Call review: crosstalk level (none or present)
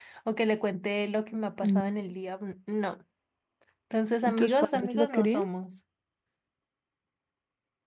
present